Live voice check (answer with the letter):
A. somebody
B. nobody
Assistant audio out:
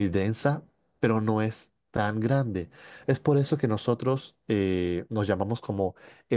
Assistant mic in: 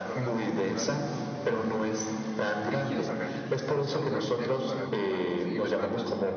A